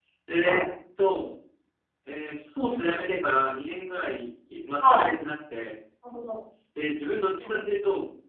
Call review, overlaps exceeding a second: none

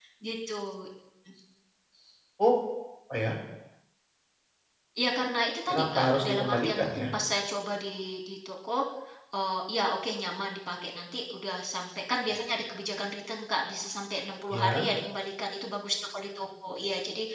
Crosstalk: present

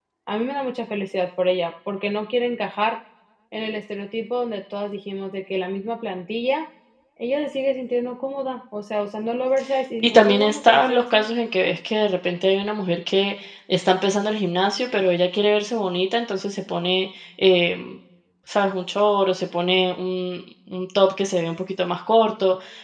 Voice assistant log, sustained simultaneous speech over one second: present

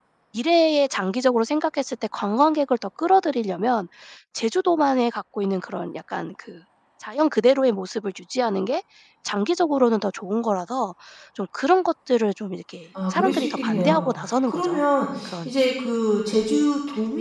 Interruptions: present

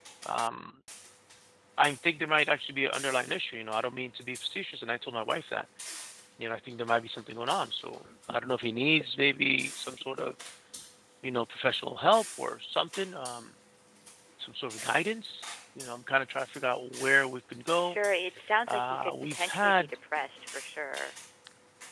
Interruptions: present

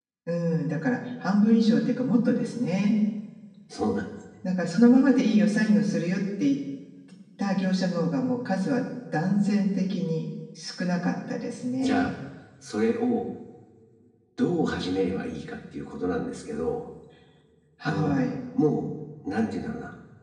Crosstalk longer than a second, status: none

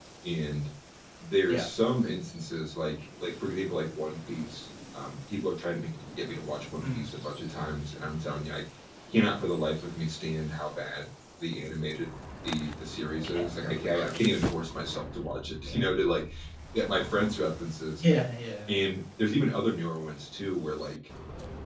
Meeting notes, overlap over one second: none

